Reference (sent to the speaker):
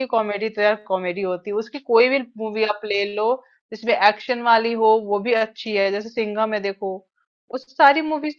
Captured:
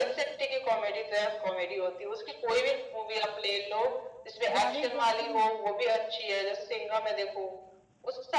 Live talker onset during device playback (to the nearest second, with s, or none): 5 s